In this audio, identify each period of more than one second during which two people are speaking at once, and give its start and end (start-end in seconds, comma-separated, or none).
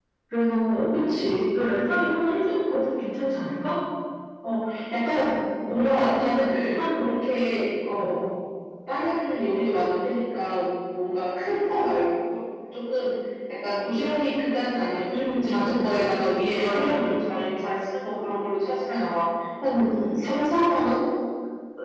5.7-7.0